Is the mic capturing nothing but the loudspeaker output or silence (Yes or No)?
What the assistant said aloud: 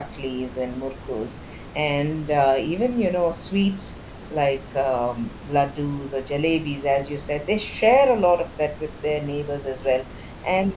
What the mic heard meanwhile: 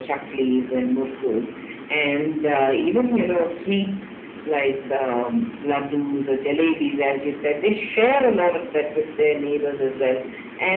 Yes